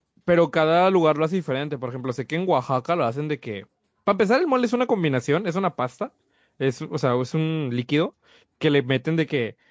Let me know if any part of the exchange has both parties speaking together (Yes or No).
No